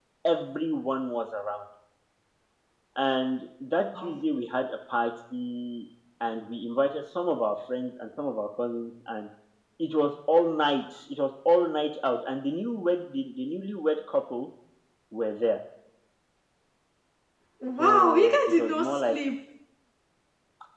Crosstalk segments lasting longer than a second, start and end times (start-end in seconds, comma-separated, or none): 17.8-19.2